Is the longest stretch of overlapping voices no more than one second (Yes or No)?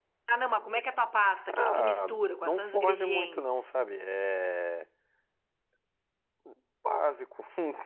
No